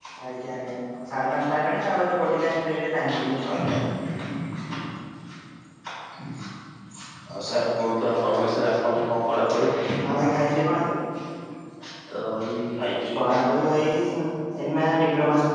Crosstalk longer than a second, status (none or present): none